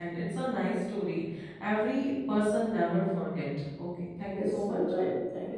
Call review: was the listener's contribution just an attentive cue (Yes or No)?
No